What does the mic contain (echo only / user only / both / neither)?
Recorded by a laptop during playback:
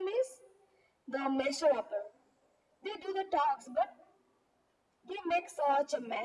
echo only